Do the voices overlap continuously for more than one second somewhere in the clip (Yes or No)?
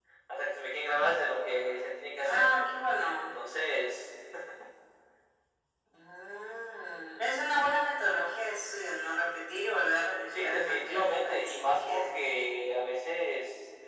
Yes